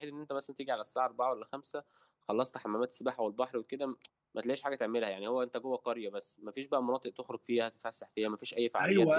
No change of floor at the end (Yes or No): No